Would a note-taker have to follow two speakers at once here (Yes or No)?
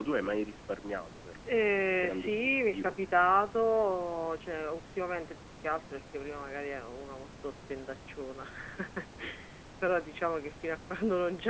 Yes